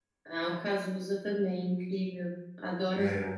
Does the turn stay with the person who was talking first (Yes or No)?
No